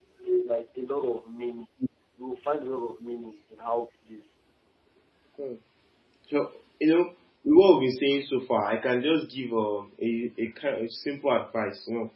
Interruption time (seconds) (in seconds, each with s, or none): none